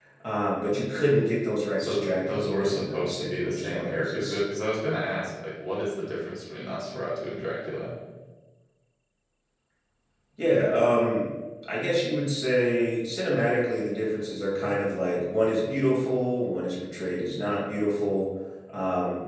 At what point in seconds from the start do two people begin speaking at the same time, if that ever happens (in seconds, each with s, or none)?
1.8 s